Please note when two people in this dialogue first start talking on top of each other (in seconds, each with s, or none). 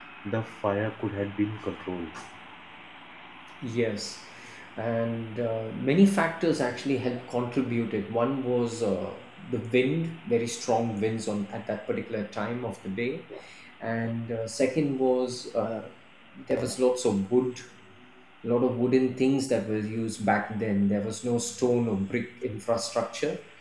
none